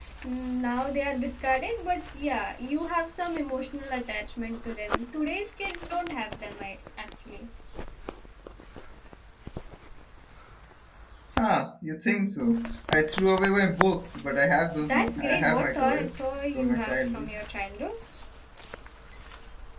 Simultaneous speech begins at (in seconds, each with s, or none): 14.9 s